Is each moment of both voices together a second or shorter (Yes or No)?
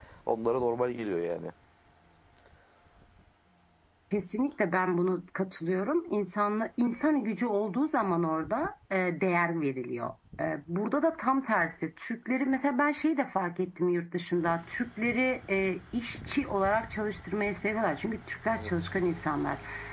Yes